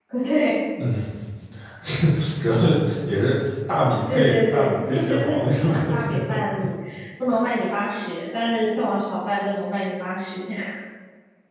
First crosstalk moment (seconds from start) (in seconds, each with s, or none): 4.1 s